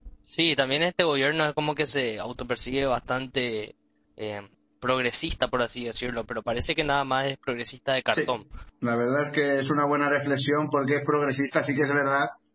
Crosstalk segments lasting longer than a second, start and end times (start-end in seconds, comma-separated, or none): none